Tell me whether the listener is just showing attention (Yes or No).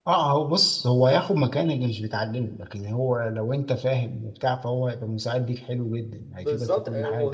No